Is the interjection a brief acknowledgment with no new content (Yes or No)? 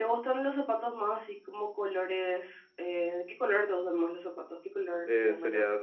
No